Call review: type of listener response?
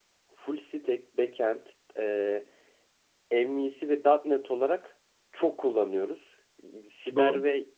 listening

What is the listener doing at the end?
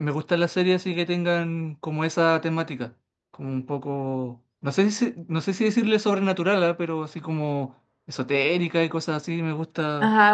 taking over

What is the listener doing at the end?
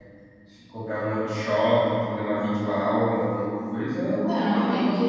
taking over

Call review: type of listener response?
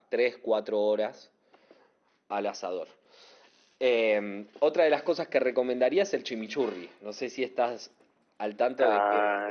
taking over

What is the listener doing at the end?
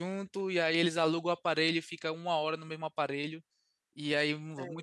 listening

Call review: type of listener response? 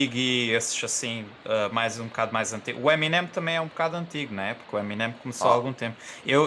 listening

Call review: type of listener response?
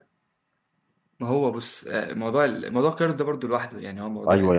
taking over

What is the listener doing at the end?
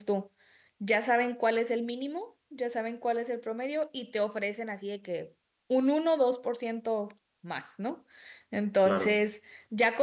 listening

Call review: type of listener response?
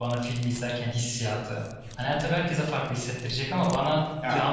listening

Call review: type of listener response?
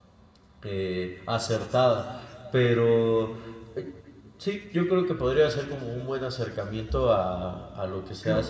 taking over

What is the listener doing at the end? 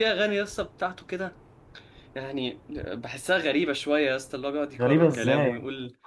taking over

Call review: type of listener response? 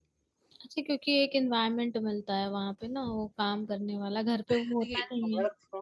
taking over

